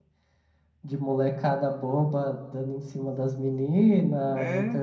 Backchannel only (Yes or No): Yes